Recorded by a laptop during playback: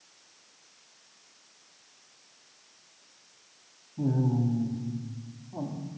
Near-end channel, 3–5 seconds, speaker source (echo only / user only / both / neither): user only